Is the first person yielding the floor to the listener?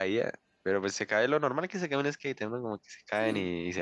No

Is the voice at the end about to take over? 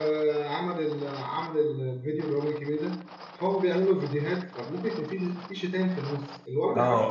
Yes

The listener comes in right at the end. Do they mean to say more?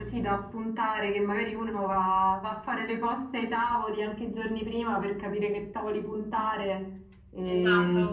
Yes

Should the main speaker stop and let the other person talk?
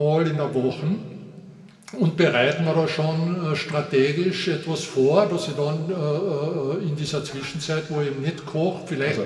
No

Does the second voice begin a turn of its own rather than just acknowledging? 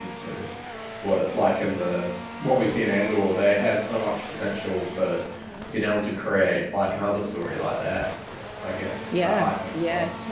Yes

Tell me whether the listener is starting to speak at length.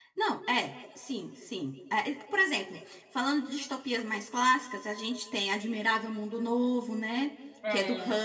No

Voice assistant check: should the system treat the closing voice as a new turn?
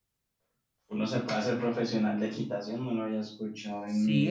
Yes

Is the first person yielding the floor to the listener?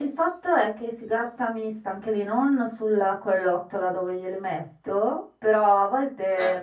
No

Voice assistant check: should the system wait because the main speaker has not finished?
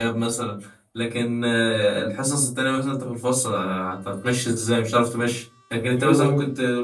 Yes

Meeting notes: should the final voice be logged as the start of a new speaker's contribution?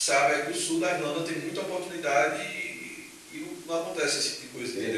Yes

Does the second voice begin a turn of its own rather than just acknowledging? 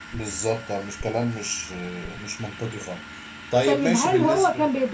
Yes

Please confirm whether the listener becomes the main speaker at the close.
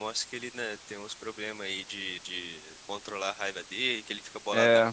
No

